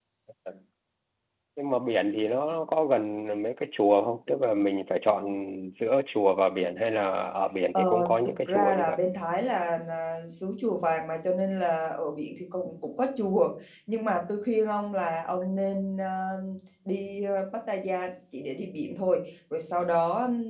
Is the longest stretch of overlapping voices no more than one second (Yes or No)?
No